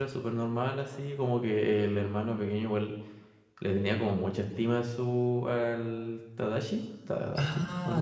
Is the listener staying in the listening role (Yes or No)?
No